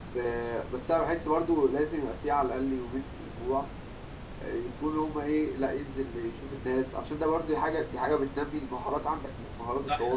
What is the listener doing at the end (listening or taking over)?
taking over